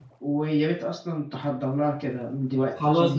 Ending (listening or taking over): taking over